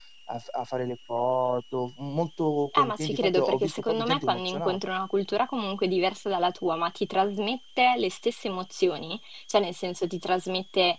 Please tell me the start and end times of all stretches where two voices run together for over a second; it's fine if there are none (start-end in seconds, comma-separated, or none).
2.7-4.8